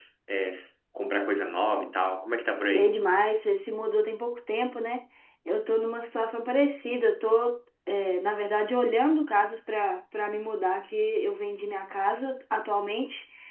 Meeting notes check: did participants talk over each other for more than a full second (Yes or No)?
No